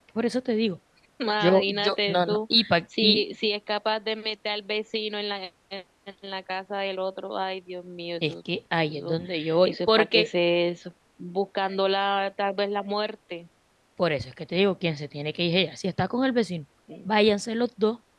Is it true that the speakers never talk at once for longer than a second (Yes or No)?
No